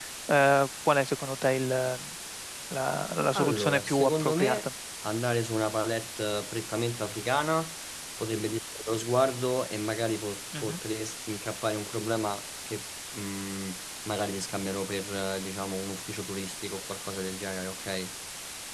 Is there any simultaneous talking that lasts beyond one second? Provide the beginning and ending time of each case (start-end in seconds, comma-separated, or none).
3.4-4.7